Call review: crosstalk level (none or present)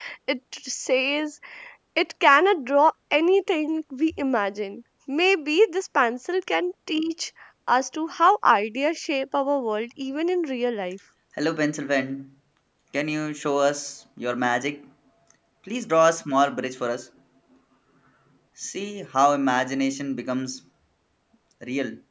none